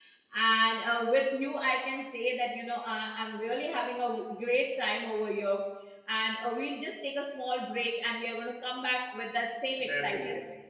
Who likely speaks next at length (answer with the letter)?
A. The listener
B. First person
A